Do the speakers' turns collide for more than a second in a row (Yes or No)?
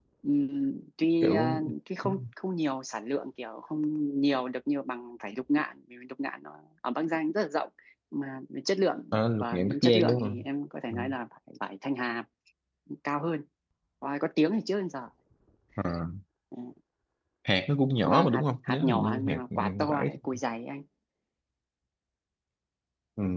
Yes